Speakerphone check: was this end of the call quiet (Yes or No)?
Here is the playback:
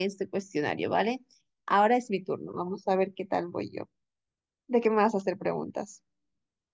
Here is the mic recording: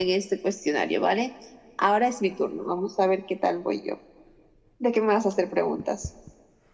Yes